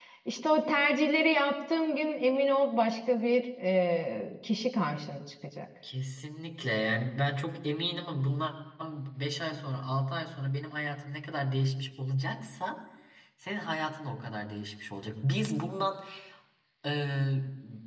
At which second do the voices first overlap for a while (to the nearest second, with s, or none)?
none